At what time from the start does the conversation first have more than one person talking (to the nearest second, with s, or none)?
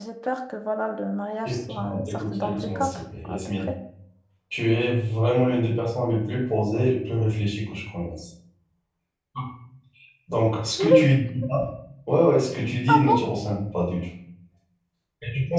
1 s